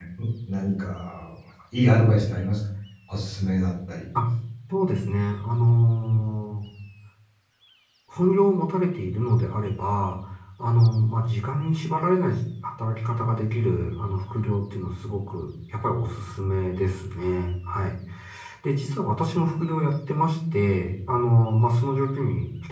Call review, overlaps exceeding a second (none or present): none